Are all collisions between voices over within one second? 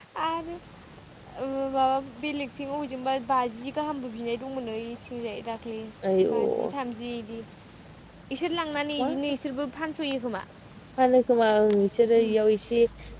Yes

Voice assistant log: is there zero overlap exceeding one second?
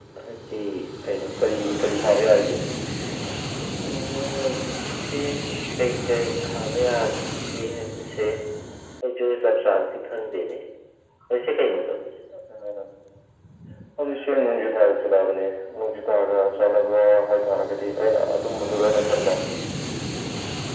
Yes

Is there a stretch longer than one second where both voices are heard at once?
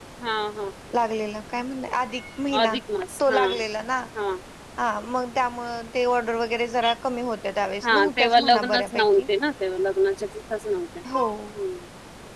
Yes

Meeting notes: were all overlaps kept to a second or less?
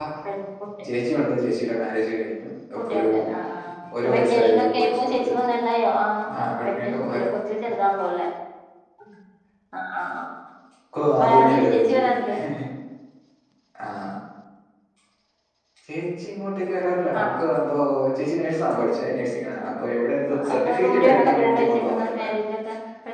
No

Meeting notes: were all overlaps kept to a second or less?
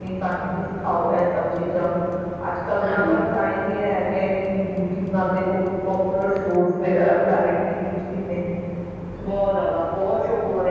Yes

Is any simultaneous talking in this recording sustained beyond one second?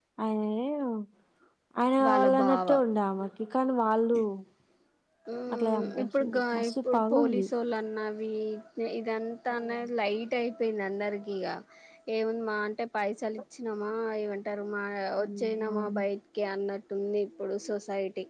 Yes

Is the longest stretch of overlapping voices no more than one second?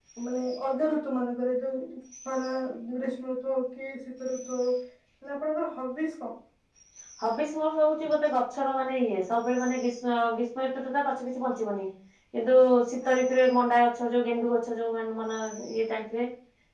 Yes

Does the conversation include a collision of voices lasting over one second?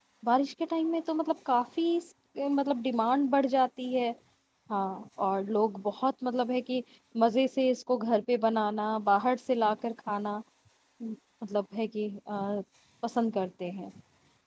No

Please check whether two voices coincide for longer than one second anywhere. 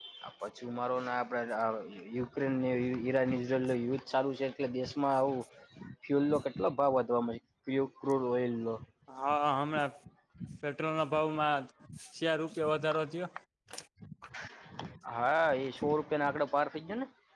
No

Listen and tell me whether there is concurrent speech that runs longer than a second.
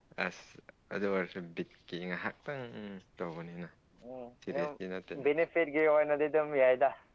No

